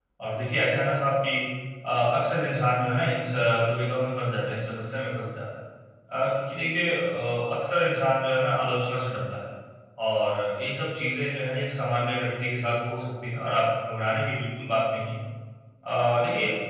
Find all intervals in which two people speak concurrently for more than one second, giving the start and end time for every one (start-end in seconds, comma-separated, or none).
none